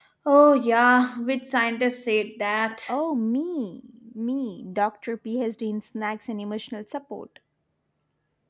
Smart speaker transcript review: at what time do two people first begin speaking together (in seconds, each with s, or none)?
none